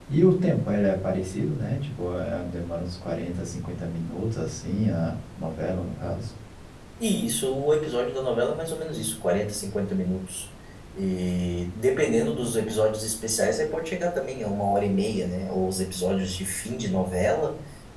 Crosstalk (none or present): none